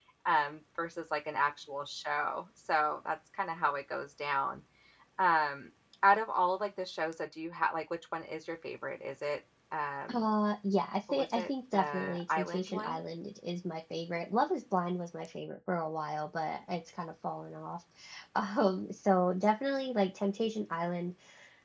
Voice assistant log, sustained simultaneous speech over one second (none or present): present